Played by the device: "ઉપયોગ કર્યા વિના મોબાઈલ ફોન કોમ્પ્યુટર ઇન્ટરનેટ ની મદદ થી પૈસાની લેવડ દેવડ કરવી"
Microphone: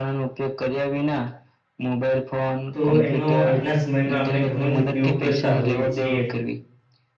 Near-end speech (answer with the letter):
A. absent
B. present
B